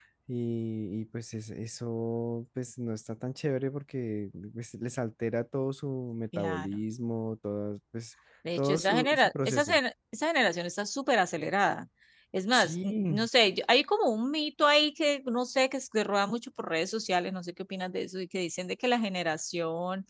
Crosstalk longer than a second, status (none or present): present